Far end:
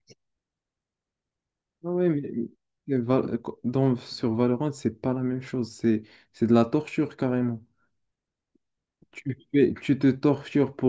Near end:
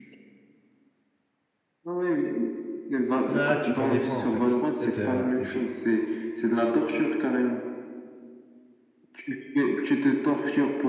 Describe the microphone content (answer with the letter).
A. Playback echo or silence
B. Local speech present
B